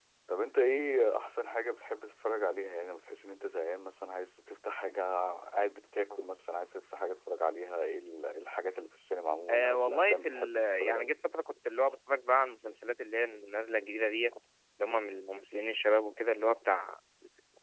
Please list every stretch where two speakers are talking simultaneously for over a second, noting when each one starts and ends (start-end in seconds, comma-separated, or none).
9.5-11.1